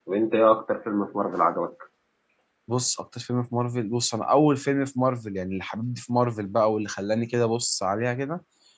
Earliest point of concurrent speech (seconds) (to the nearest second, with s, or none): none